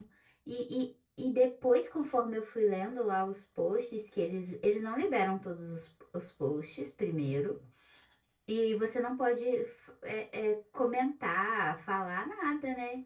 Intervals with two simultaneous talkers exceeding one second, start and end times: none

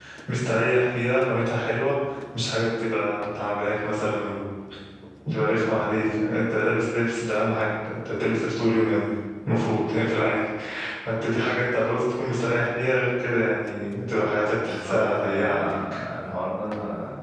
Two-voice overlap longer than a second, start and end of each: 14.6-16.0

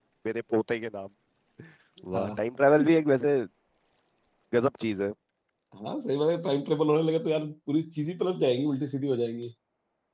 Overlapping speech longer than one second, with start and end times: none

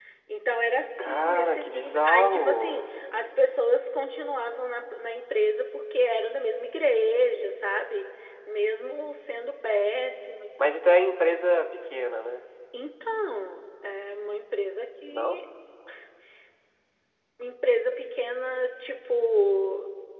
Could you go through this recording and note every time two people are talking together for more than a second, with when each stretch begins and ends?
1.0-2.8

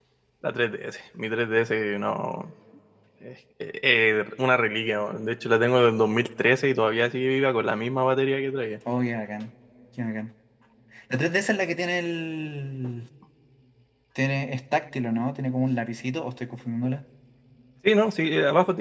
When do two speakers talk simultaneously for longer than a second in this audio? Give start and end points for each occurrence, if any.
none

